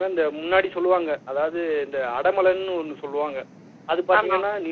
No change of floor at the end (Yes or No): Yes